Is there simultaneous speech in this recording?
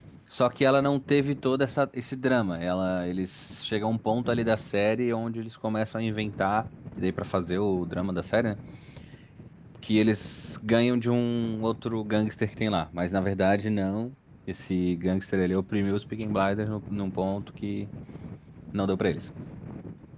No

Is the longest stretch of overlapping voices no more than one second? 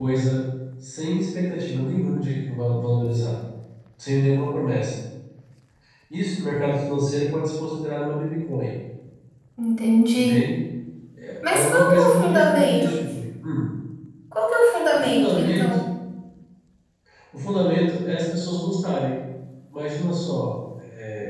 No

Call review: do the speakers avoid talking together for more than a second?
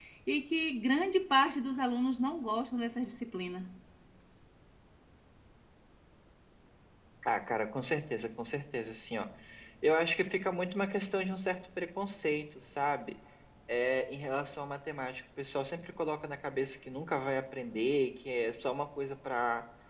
Yes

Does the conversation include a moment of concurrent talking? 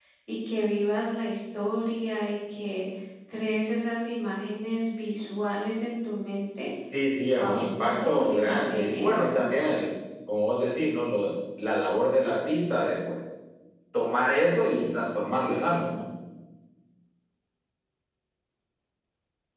Yes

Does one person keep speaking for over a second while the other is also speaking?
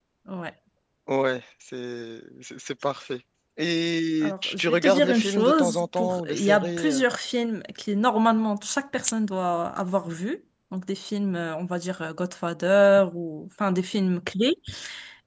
Yes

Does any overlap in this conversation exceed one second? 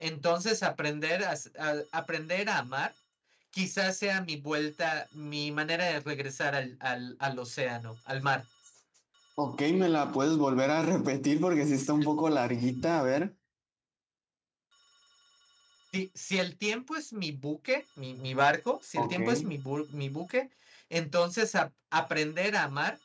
No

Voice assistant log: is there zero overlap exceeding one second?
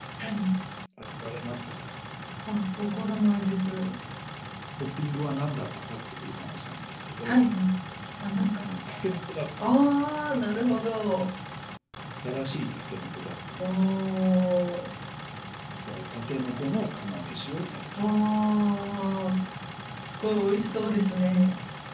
Yes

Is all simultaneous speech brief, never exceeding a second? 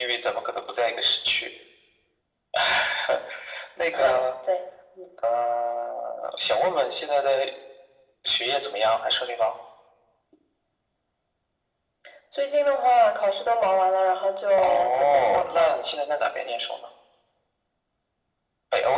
No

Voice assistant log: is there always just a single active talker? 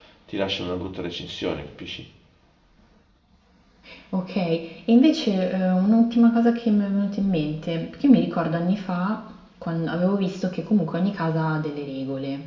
Yes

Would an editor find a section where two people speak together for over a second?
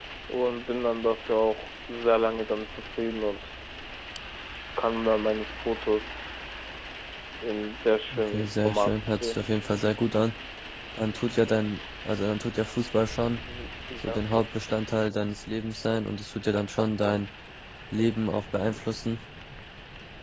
Yes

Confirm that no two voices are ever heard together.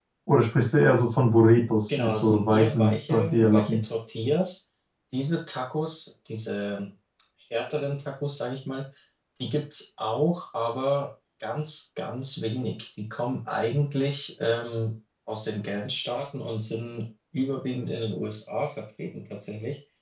No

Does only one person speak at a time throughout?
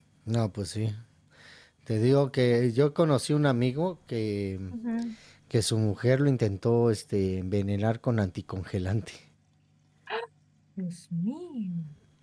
Yes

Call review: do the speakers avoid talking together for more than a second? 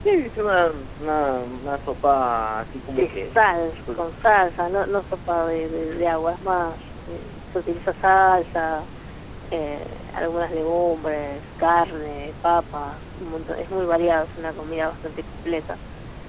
Yes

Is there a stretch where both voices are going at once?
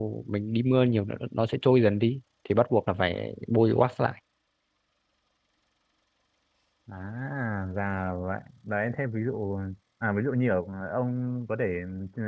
No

